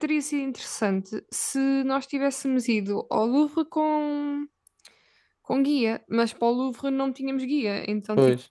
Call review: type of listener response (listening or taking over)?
listening